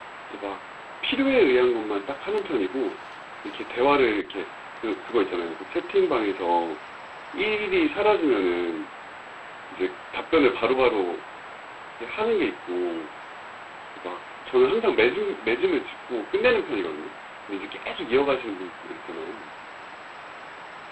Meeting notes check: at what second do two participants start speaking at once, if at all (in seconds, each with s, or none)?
none